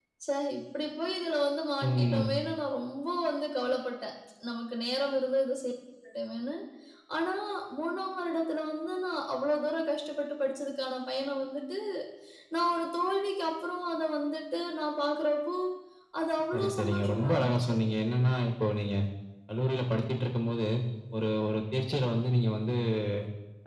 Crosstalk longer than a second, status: present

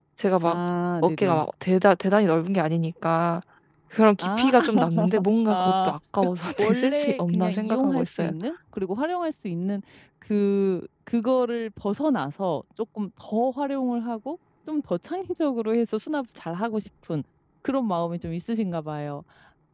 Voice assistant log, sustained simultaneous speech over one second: present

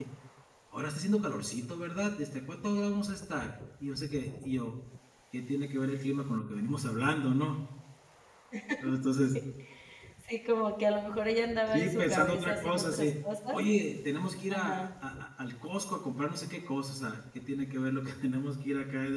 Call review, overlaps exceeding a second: present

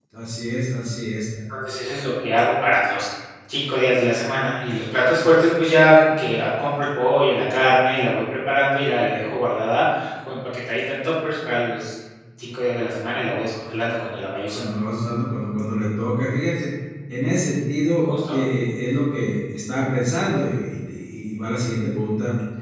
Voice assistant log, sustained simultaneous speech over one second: none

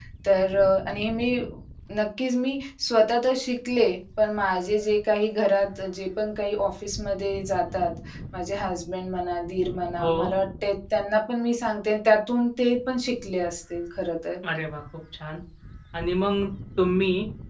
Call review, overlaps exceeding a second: none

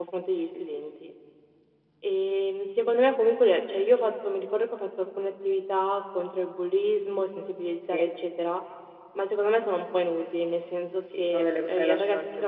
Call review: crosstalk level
present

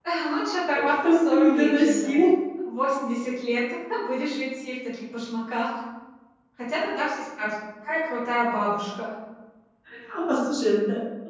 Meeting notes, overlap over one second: present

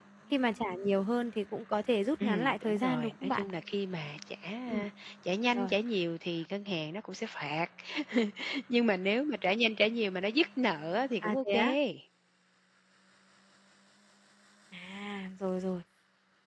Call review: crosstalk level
present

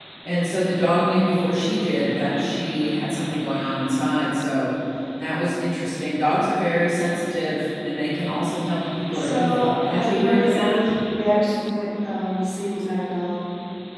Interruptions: present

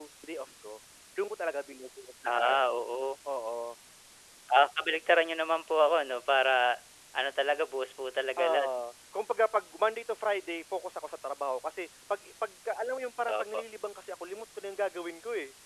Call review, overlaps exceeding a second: none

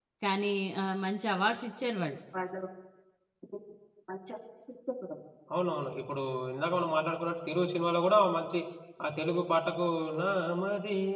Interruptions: none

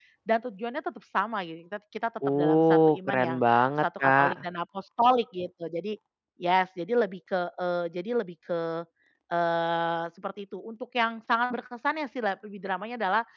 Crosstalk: present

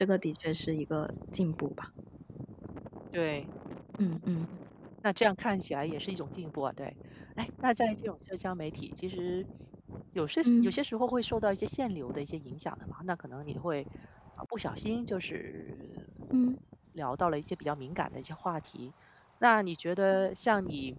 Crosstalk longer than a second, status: none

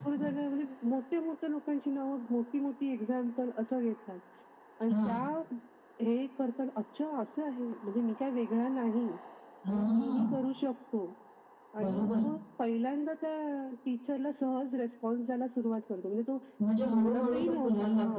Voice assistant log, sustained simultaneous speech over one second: present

